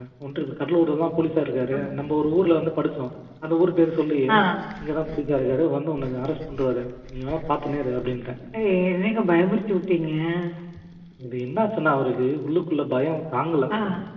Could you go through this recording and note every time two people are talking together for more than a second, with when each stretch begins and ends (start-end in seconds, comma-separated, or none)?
none